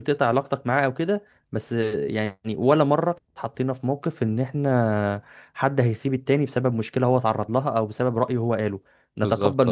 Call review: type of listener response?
listening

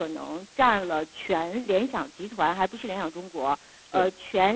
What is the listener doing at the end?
listening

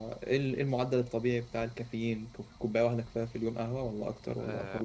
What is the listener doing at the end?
taking over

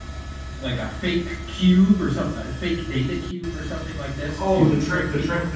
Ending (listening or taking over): taking over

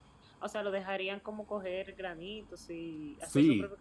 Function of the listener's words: taking over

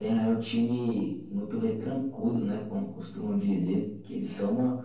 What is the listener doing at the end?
listening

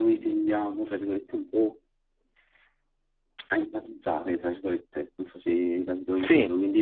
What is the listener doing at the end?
listening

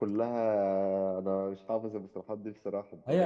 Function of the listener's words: taking over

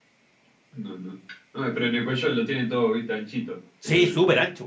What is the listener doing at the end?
taking over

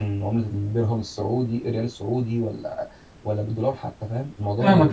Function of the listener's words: taking over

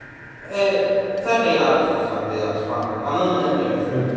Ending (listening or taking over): taking over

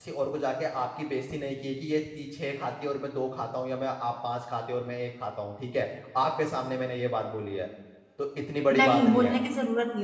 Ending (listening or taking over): taking over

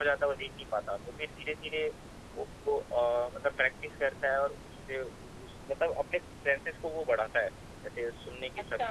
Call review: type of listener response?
taking over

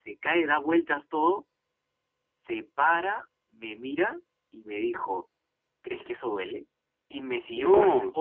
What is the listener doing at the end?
listening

